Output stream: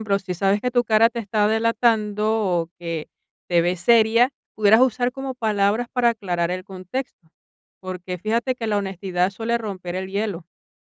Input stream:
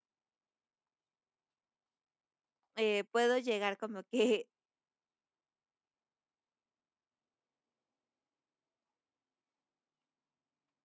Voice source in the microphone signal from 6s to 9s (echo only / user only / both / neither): neither